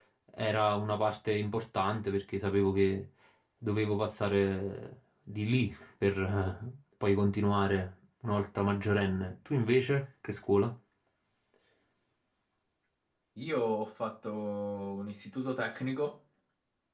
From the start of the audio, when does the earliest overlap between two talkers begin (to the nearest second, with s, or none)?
none